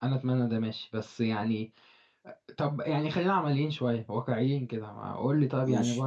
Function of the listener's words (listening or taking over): listening